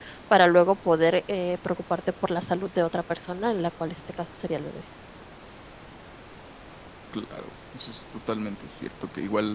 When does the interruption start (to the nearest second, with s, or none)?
none